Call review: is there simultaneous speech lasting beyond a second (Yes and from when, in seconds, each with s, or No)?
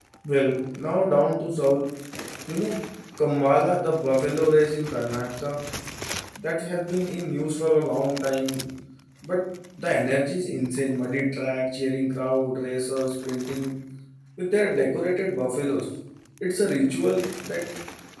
No